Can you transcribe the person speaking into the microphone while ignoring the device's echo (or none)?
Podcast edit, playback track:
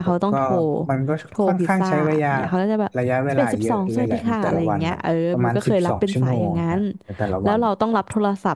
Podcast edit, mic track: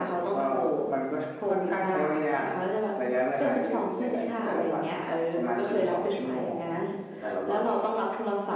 none